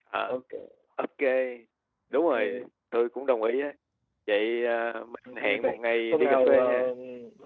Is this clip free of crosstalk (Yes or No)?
No